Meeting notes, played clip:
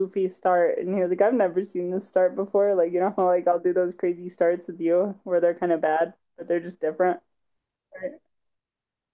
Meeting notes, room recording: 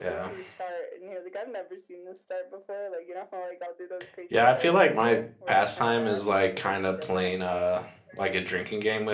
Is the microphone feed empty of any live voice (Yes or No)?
No